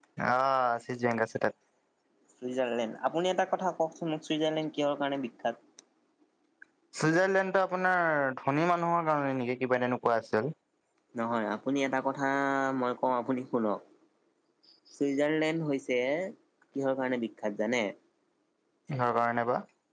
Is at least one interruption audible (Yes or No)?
No